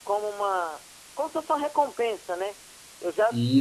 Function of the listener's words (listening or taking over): listening